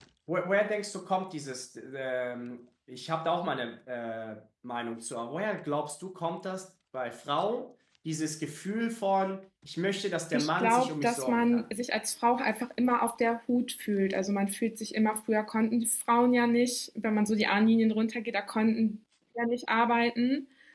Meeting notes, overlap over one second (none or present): present